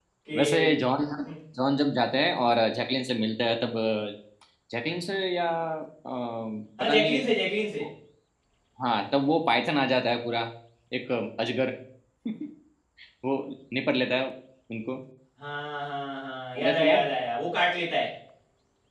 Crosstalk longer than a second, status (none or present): none